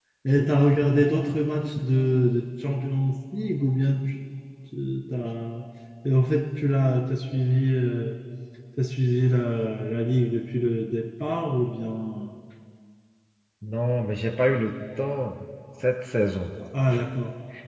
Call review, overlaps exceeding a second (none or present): none